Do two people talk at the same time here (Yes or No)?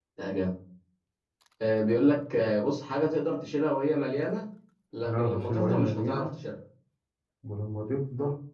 Yes